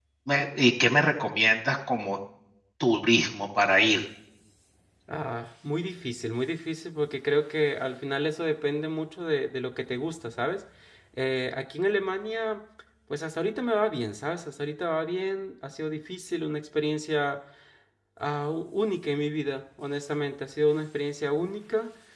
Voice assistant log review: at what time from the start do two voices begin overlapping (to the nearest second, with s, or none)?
none